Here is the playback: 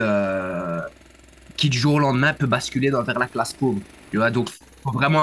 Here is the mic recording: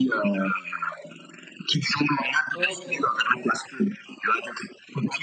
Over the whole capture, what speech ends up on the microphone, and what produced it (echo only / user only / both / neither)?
both